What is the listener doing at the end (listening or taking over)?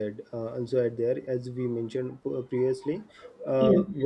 listening